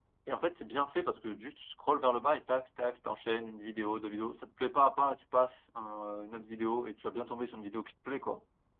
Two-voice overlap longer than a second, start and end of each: none

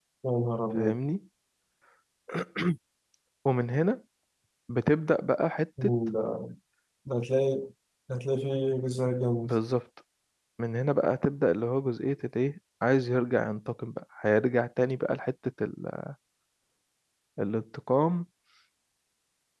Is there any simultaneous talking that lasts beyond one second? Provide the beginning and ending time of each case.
none

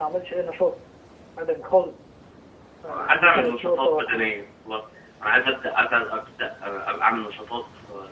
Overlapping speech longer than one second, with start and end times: 2.9-4.3

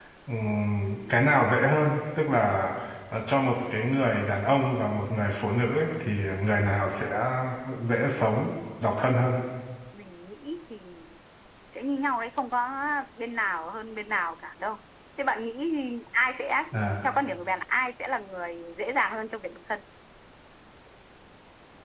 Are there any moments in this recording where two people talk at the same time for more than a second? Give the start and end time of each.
none

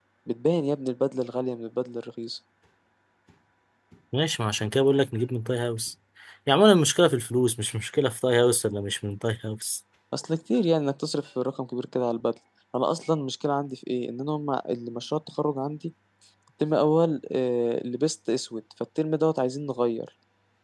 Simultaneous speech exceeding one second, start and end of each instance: none

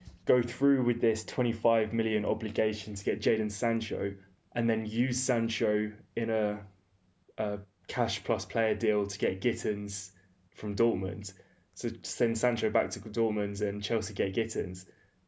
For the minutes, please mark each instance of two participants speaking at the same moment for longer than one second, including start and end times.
none

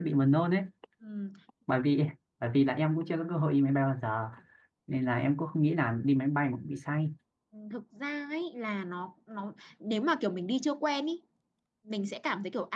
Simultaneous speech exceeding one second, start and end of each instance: none

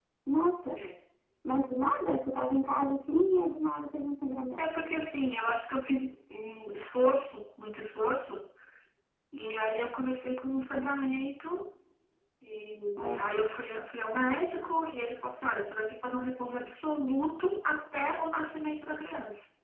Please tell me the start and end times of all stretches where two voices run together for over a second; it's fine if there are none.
none

